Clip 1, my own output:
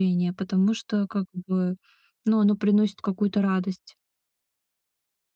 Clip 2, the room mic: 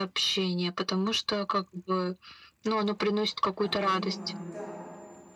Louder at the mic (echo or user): echo